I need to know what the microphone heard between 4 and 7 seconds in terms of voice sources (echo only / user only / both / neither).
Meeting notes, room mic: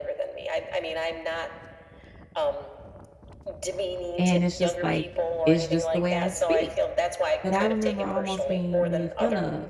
both